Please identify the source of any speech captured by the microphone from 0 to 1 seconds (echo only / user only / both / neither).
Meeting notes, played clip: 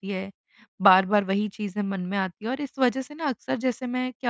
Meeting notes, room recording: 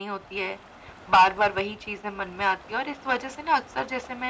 echo only